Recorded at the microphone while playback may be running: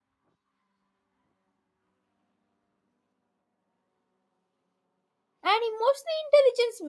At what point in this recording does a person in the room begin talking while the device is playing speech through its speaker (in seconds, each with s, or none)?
5.5 s